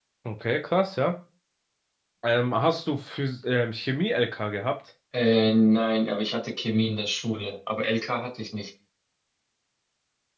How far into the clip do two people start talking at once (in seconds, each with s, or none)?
none